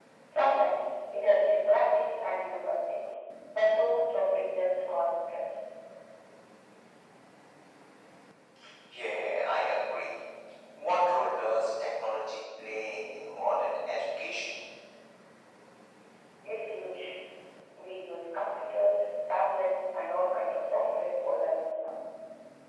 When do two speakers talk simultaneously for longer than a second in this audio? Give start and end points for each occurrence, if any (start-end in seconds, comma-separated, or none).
none